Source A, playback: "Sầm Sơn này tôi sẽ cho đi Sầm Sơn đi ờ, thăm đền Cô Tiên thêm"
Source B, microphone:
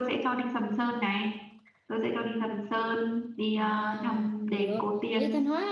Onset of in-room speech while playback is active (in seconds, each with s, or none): 3.5 s